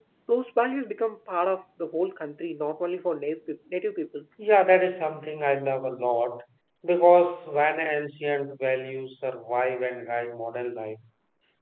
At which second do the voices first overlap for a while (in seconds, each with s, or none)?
none